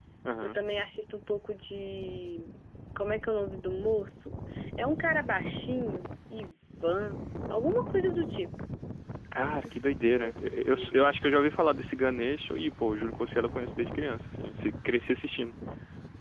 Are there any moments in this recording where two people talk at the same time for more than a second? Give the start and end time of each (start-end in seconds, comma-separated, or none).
9.6-11.0